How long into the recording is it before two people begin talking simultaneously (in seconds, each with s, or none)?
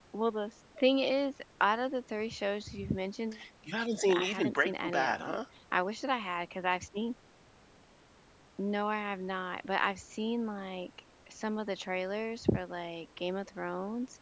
4.1 s